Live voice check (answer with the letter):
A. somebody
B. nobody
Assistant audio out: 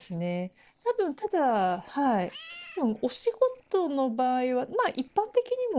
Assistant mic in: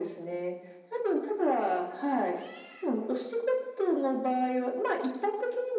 B